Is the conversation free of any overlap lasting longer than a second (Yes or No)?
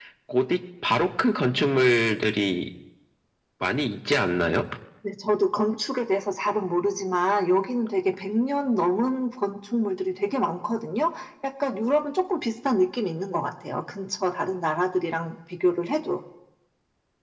Yes